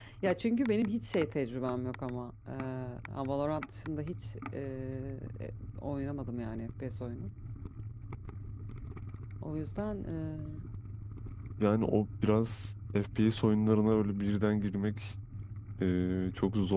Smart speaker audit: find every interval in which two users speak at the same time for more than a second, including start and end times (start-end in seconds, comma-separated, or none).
none